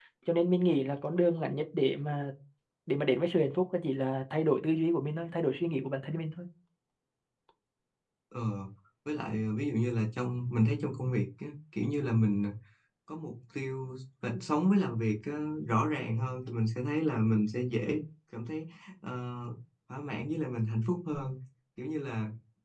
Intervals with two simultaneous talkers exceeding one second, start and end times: none

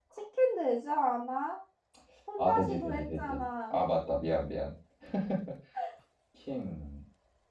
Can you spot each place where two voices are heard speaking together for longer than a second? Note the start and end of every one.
2.4-3.8

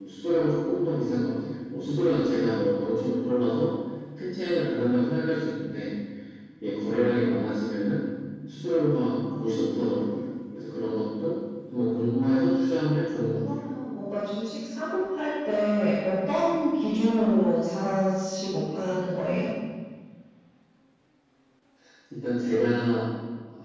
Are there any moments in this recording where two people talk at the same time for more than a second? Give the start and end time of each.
none

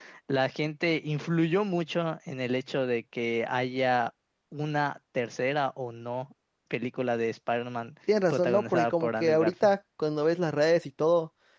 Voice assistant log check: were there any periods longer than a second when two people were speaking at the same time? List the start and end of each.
8.3-9.5

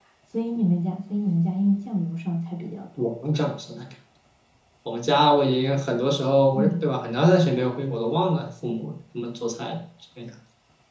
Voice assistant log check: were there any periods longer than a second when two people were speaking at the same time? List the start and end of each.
none

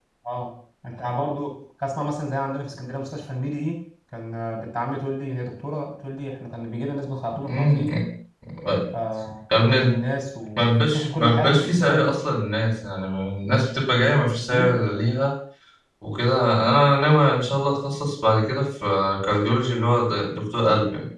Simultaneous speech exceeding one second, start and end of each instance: 10.6-12.2

